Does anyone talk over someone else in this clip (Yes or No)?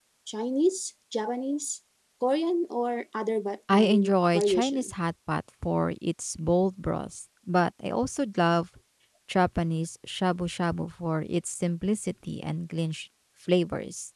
Yes